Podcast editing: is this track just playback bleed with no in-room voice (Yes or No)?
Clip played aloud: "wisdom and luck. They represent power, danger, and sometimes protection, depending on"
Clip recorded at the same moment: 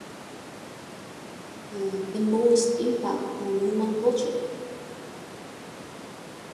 No